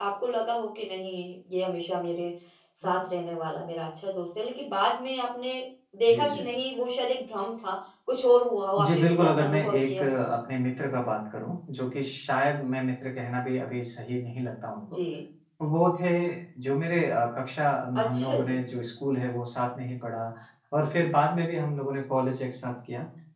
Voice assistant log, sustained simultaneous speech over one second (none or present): present